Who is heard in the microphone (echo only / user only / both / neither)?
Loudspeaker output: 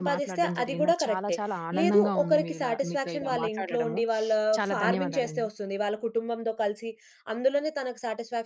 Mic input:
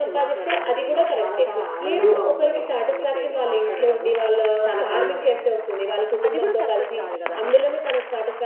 both